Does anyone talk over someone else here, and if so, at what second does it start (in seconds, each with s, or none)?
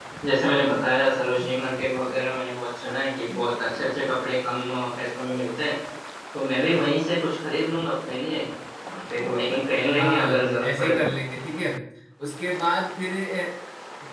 9.8 s